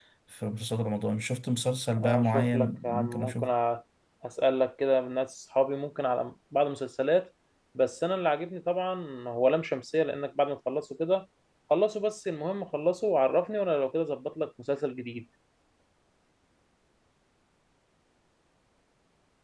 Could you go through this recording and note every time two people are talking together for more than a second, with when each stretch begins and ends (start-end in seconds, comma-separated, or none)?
2.0-3.5